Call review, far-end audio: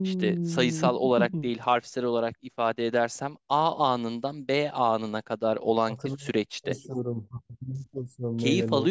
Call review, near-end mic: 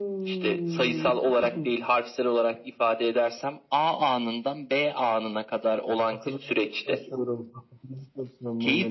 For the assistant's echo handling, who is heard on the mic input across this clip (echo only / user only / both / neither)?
echo only